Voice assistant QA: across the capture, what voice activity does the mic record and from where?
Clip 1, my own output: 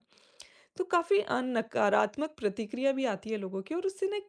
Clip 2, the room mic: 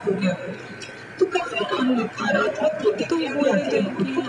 both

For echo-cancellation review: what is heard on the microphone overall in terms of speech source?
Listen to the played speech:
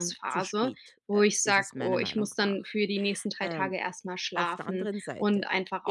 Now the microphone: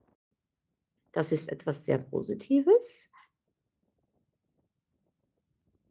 user only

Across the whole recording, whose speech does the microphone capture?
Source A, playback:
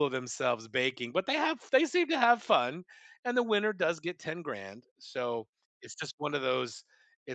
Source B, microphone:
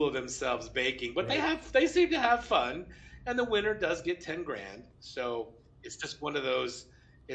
both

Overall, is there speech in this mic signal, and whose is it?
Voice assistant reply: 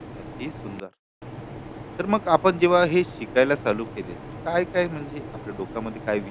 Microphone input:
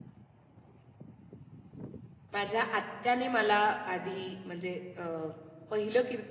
user only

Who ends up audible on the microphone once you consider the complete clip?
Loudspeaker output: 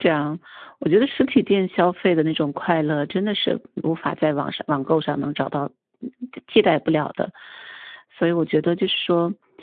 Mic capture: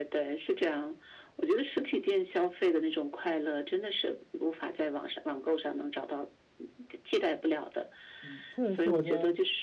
both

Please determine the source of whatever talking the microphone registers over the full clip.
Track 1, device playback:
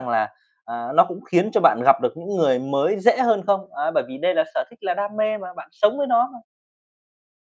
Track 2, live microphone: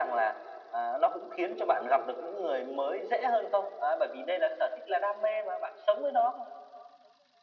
echo only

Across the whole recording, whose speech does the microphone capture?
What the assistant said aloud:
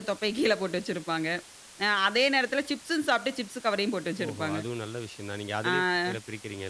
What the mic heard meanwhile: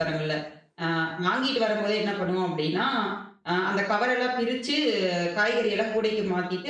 user only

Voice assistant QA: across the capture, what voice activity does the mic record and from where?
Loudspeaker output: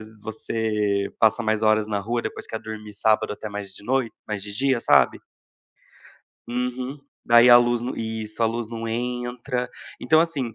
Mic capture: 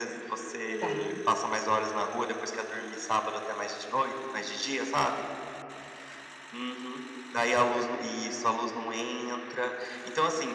both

